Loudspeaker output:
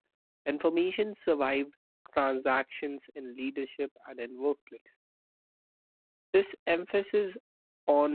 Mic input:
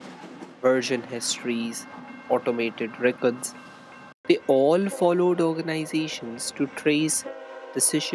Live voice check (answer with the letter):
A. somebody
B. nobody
A